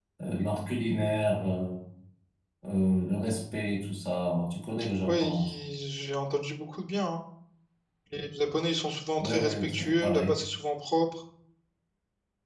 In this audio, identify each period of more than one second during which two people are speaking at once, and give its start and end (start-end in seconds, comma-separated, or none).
9.2-10.4